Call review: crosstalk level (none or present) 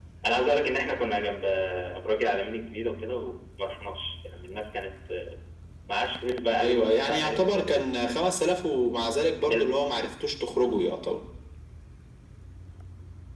present